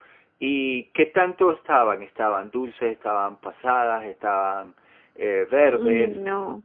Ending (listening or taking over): taking over